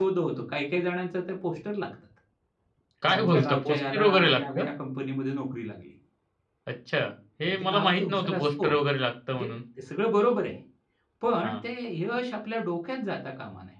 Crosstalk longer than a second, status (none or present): present